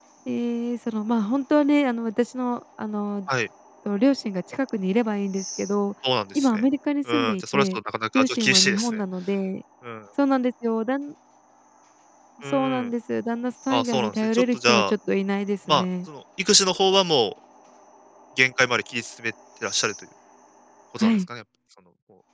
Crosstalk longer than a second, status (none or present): present